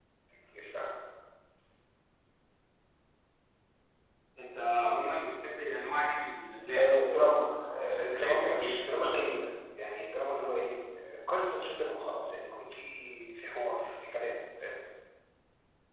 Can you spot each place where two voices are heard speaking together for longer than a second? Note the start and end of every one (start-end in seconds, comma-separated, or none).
6.8-9.2